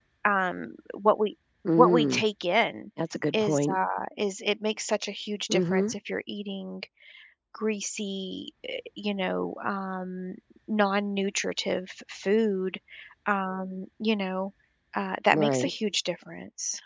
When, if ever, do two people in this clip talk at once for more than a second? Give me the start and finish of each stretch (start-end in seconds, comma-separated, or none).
none